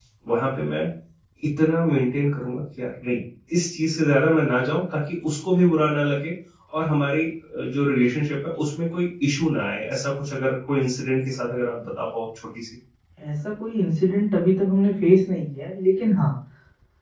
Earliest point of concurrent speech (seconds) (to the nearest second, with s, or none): none